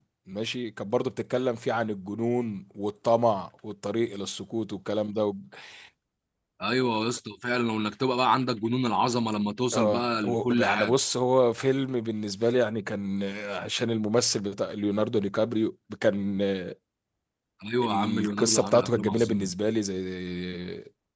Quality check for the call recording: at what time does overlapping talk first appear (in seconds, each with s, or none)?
9.7 s